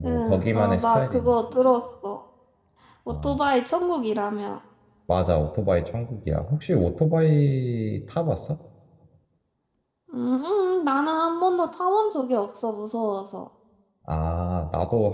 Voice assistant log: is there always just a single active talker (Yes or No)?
No